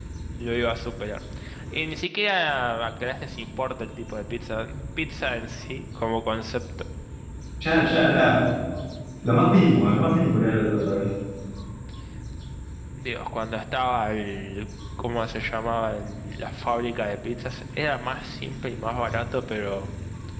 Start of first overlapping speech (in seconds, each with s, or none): none